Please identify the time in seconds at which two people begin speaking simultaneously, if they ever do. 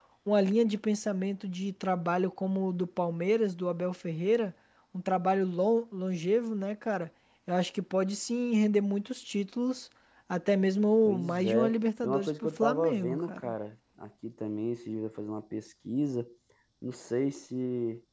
11.1 s

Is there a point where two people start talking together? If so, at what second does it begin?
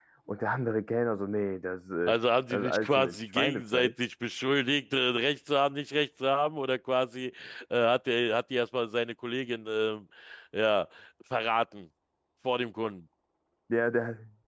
2.5 s

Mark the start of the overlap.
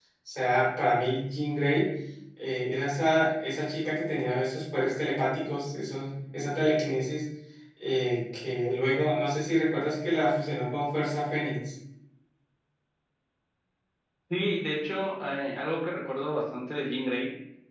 none

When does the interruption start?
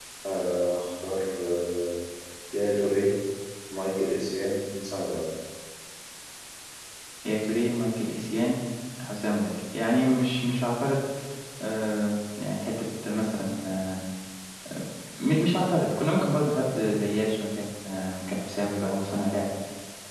none

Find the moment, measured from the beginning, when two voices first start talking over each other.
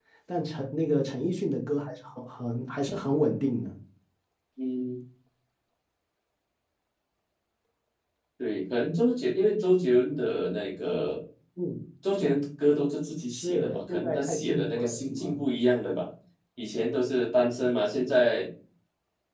13.3 s

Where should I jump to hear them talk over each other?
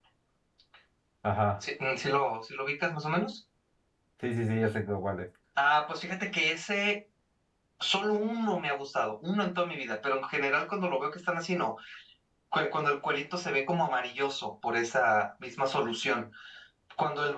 none

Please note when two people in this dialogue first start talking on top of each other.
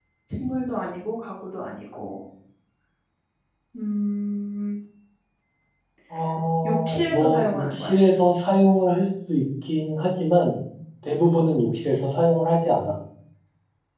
6.6 s

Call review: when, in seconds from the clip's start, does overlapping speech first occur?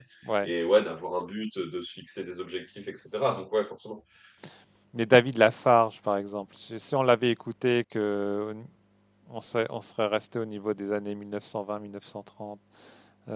none

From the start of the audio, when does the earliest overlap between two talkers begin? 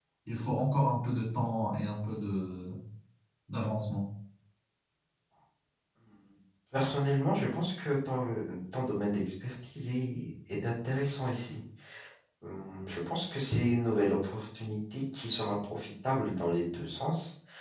none

